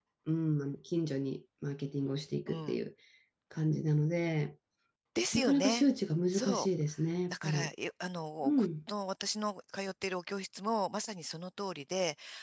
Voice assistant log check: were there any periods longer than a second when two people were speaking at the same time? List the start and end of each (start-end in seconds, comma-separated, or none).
none